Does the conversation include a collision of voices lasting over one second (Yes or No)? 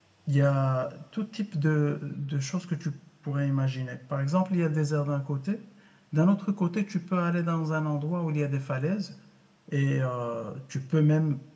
No